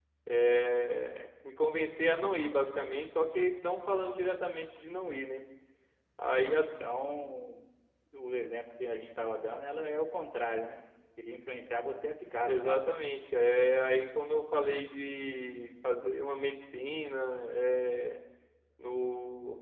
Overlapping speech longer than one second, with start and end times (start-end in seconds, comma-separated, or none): none